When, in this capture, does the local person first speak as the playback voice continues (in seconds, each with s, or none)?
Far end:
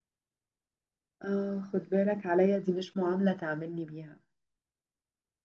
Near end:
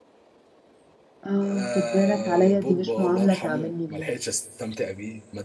1.4 s